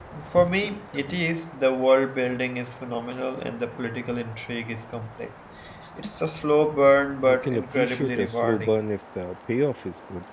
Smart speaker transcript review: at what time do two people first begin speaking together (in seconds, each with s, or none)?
7.2 s